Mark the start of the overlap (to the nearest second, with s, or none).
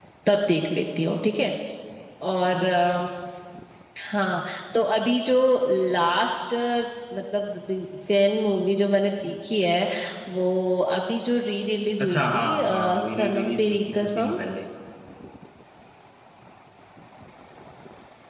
12 s